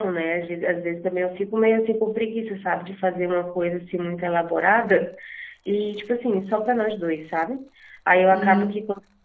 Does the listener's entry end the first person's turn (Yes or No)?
No